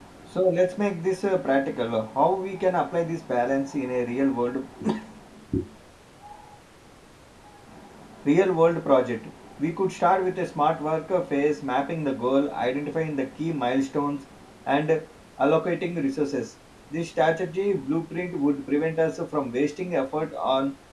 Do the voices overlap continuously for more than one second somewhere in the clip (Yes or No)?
No